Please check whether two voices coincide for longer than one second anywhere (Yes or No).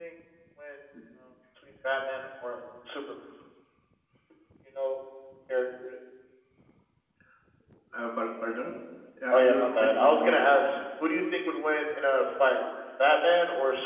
Yes